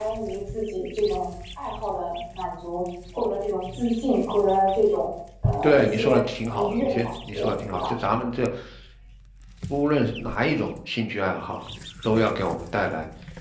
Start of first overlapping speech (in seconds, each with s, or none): 5.6 s